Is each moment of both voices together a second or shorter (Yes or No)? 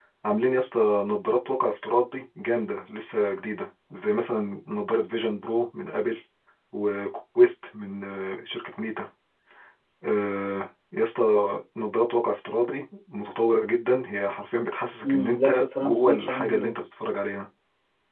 No